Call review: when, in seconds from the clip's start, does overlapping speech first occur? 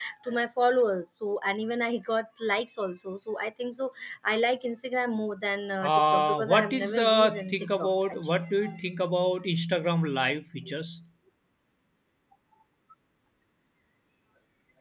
5.8 s

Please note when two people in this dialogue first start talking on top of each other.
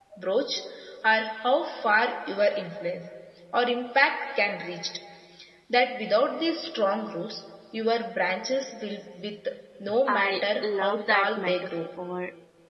10.1 s

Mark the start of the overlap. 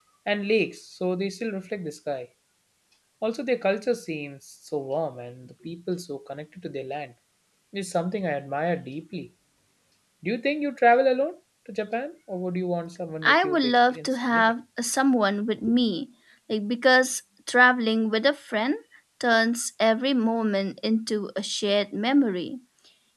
13.2 s

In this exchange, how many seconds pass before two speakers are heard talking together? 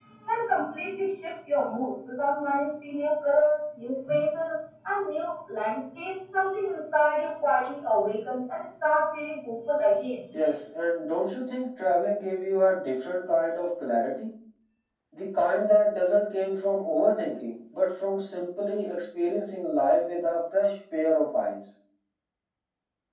none

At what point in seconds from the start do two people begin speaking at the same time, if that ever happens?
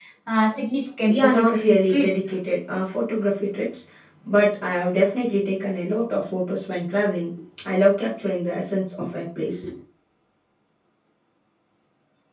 1.1 s

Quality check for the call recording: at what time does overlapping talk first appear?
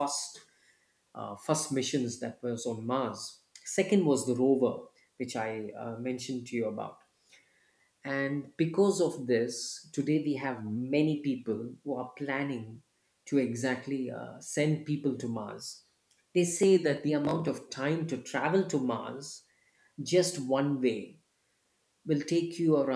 none

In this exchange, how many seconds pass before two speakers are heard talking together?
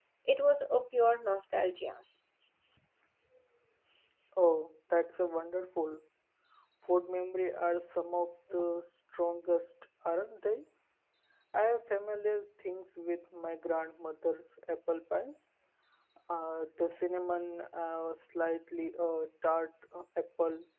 none

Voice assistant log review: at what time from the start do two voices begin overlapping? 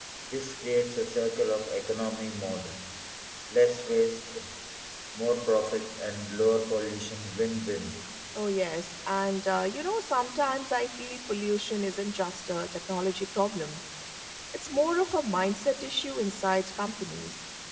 none

